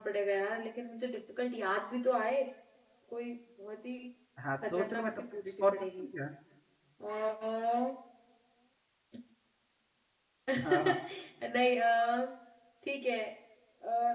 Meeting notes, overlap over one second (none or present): present